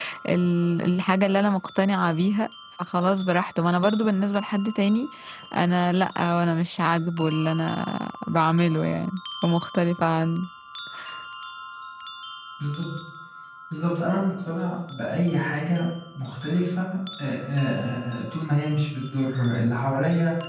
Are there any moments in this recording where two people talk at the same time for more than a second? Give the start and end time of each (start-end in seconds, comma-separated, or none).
none